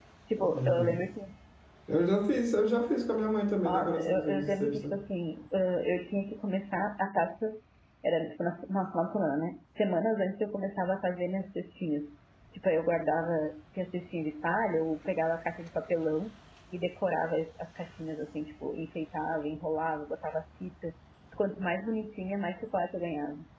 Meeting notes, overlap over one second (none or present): present